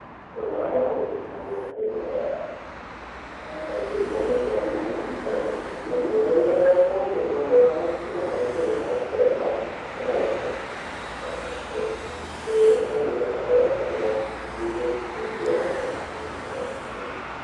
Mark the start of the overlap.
3.6 s

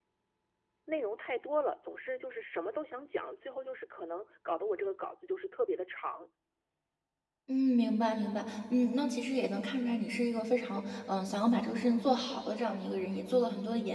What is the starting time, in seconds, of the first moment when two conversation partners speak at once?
none

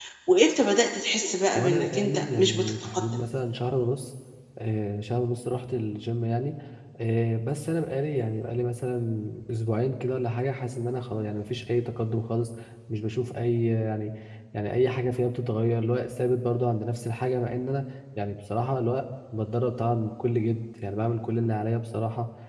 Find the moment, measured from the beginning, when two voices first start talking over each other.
1.5 s

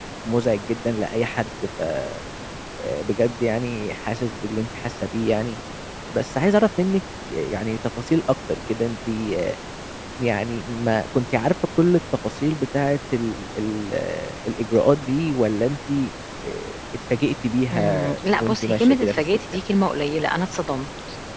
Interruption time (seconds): 17.7 s

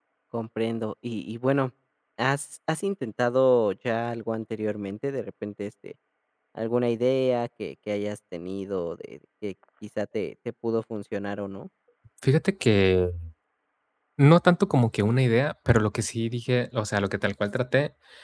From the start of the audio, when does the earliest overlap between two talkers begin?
none

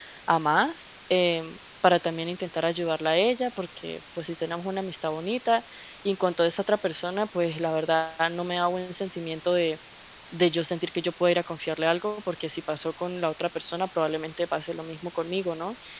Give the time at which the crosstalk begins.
none

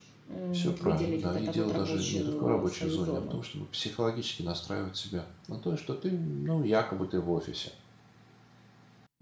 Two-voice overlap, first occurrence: 0.8 s

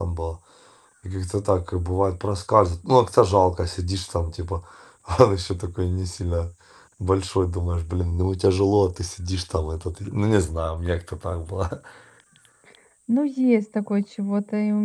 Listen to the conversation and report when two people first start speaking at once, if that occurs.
none

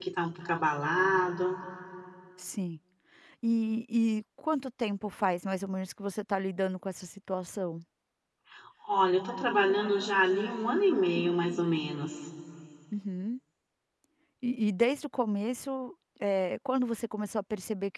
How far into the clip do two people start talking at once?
none

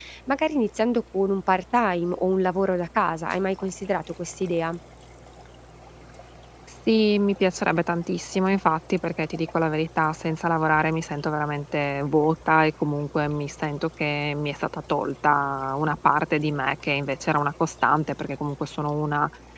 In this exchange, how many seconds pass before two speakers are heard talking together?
none

